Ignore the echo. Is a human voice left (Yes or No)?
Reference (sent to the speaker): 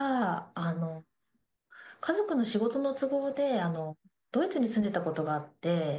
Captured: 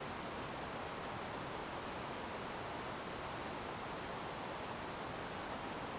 No